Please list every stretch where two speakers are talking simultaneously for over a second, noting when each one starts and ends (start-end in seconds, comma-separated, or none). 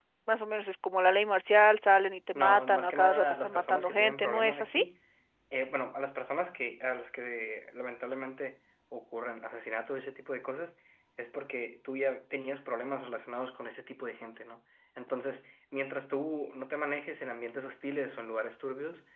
2.4-4.8